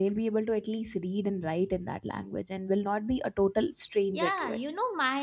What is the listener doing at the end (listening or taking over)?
taking over